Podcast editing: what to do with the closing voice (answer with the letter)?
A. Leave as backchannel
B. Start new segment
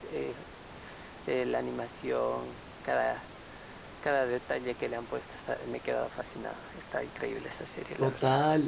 B